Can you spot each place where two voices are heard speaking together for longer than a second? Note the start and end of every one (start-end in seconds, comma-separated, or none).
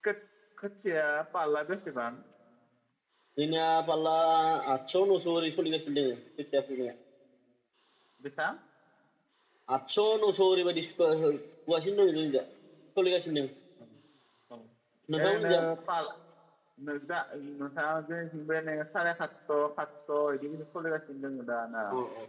none